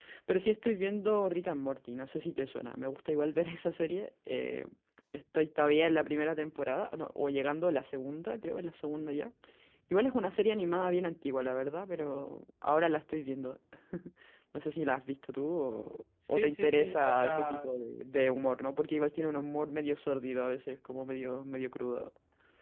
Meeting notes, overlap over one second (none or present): present